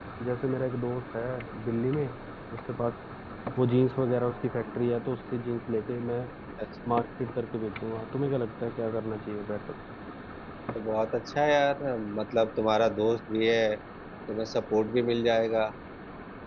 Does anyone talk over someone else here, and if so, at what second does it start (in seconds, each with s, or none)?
none